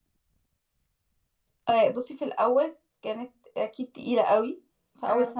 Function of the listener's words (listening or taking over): listening